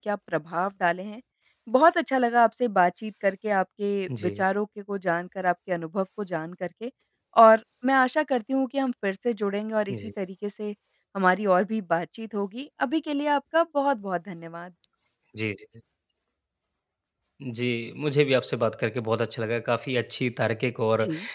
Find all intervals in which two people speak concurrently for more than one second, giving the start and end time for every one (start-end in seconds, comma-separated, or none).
none